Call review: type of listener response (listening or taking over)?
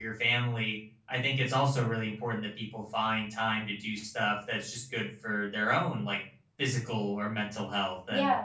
taking over